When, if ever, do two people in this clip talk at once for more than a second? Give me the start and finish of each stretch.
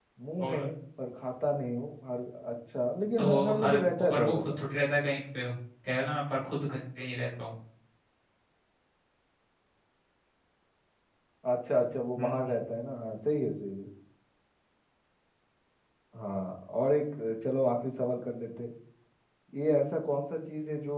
3.2-4.5

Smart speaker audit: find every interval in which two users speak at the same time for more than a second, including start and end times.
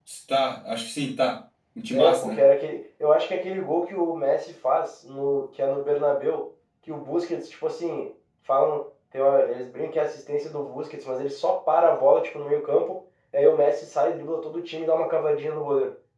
none

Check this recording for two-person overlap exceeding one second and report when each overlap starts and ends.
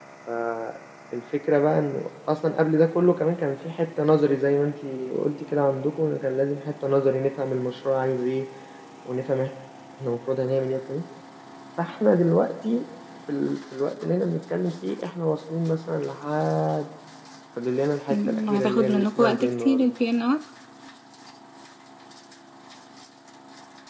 18.1-19.9

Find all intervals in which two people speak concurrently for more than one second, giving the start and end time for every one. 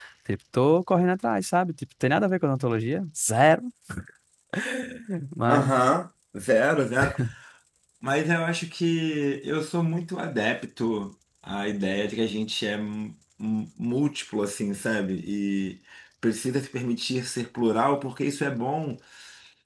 none

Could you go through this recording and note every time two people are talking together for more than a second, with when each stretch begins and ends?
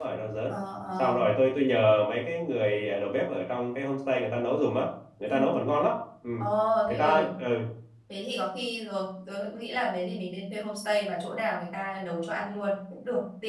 none

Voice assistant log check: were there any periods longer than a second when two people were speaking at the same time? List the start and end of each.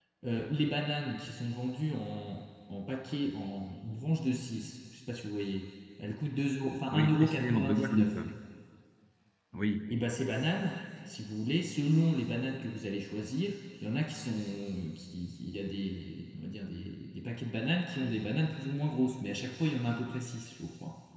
6.9-8.2

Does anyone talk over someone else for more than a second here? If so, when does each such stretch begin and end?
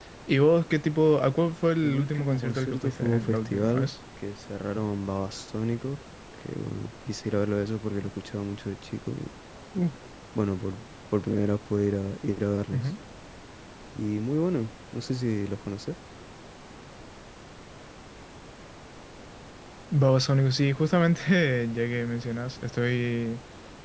1.8-3.9

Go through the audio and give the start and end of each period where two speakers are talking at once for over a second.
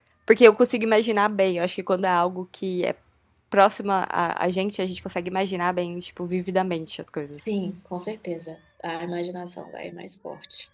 none

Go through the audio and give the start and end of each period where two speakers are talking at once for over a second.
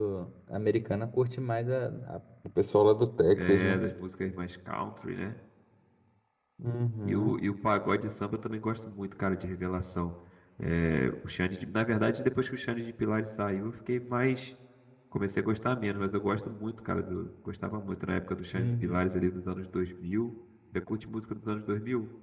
none

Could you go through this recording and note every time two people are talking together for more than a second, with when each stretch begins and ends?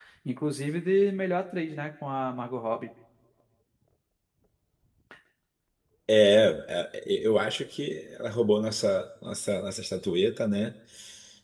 none

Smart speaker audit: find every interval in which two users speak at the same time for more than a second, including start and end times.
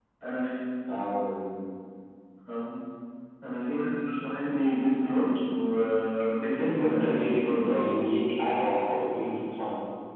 6.5-7.9

